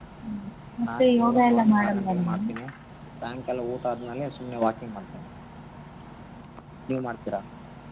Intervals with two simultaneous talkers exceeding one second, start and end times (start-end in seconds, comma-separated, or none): 0.8-2.4